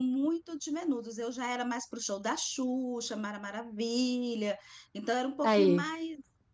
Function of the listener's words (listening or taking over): listening